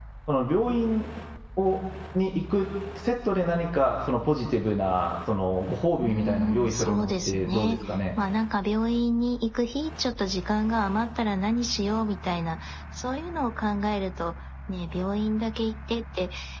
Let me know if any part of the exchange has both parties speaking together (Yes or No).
Yes